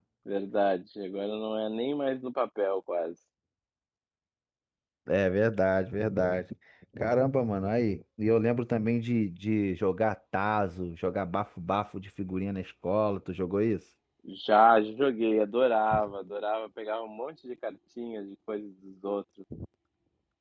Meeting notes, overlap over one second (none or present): none